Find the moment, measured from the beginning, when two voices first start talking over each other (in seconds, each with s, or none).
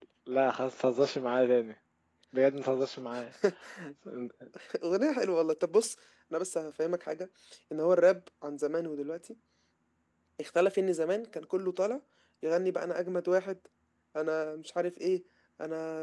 none